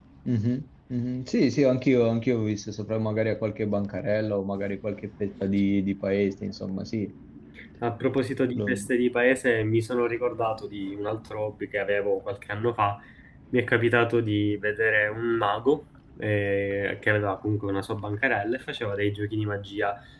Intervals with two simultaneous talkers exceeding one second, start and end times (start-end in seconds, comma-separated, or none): none